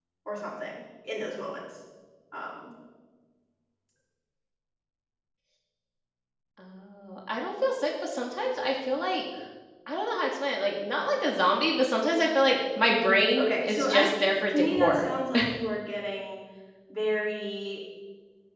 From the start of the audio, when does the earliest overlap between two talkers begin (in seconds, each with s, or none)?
12.8 s